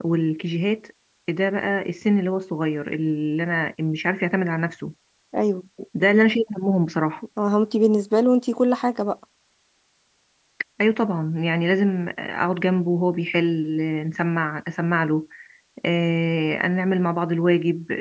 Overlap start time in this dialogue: none

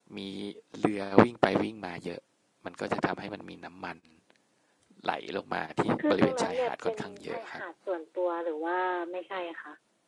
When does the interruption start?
6.0 s

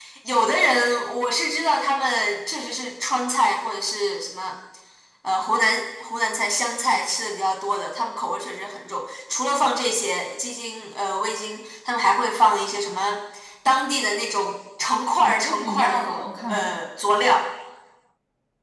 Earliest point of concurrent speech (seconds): 15.2 s

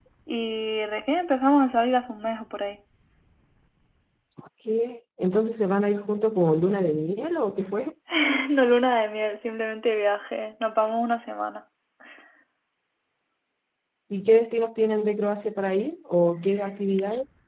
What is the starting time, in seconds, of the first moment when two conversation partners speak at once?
none

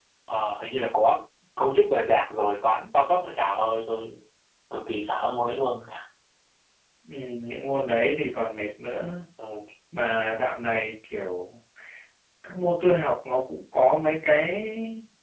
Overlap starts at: none

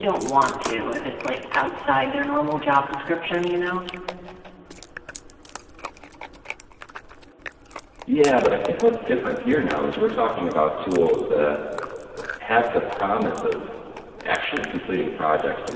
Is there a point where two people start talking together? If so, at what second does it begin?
none

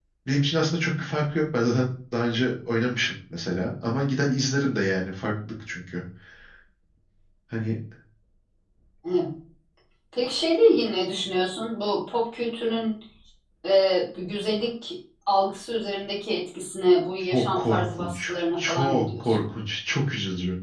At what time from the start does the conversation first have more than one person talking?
17.3 s

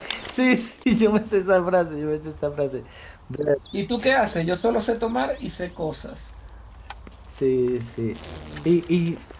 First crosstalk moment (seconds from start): none

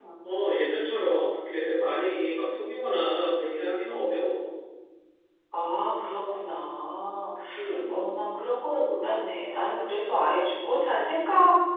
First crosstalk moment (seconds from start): none

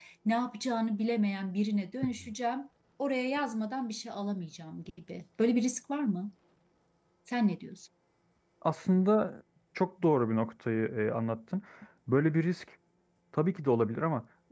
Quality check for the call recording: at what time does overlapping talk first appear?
none

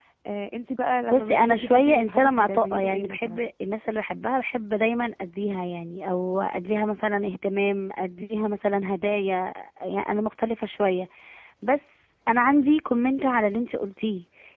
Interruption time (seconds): 1.1 s

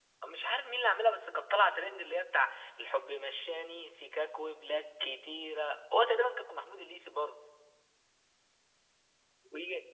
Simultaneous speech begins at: none

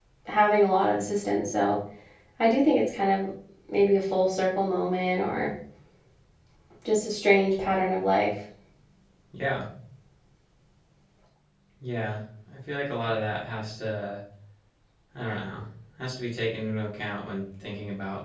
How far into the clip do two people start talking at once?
none

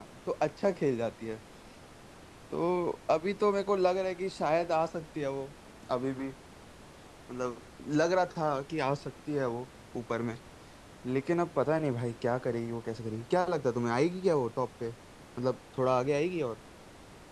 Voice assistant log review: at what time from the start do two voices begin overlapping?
none

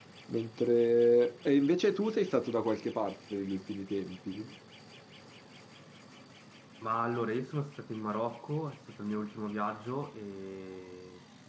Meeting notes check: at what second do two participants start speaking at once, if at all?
none

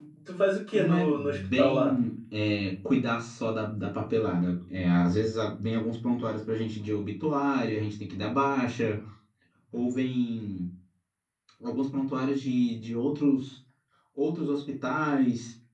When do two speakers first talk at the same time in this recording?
0.7 s

